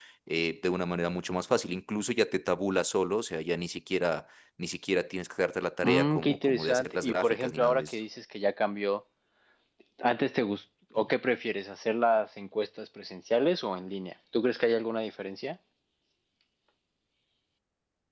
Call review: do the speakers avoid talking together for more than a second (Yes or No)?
No